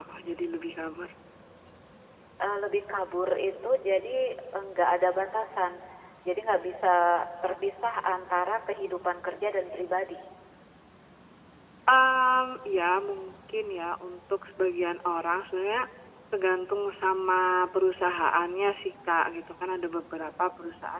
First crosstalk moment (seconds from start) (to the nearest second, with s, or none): none